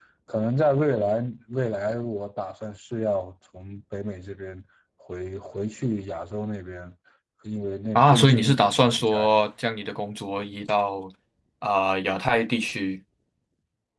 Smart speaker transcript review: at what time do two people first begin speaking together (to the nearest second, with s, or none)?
8 s